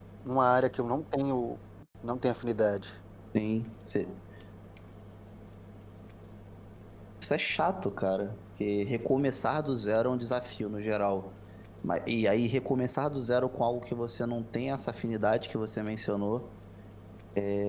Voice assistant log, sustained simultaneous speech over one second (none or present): none